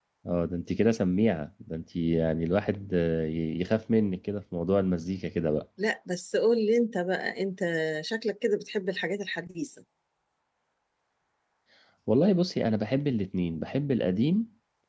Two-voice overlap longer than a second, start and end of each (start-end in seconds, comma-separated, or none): none